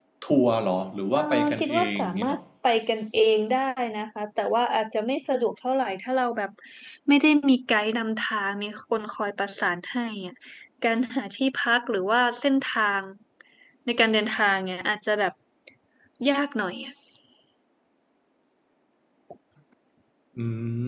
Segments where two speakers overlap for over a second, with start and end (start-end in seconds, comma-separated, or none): 1.2-2.4